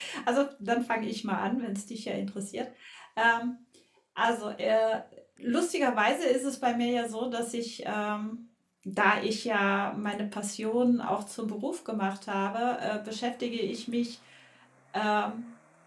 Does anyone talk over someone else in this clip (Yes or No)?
No